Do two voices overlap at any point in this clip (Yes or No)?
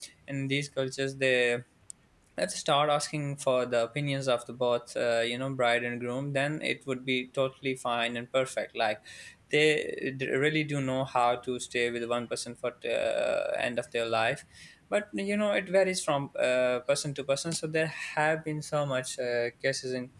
No